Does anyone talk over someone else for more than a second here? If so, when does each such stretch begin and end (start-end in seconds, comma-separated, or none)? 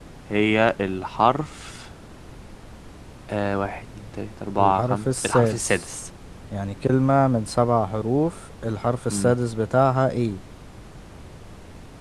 4.6-5.9